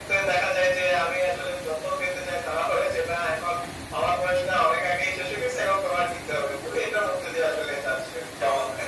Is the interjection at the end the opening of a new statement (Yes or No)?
Yes